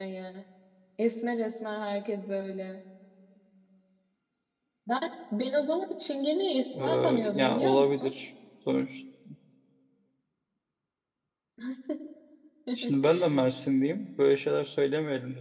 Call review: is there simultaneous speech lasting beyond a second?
Yes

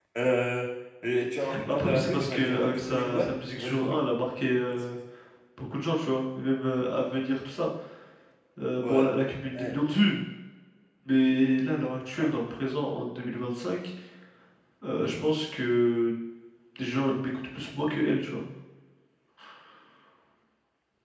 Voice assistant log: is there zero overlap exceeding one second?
No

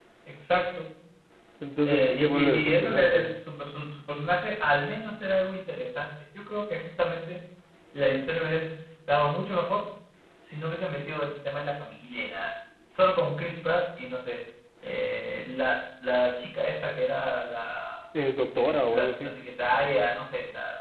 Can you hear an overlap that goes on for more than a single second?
Yes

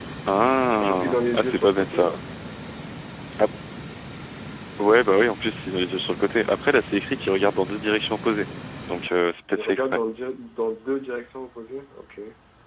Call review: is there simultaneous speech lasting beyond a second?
Yes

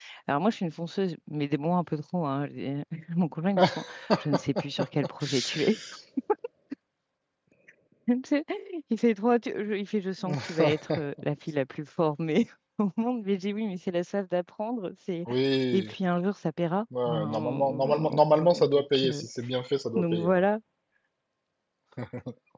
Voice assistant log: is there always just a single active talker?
No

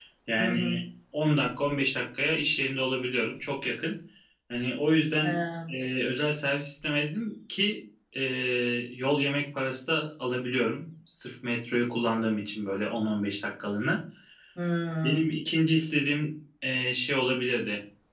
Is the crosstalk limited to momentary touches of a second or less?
Yes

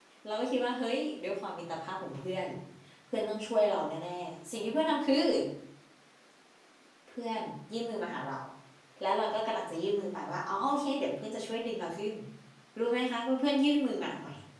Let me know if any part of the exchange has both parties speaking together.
No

